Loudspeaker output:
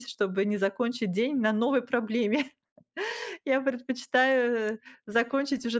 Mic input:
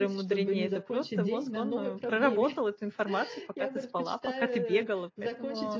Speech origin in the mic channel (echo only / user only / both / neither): both